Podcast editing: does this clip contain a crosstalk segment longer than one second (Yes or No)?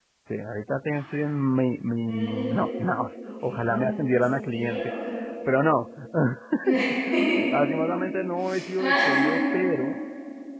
Yes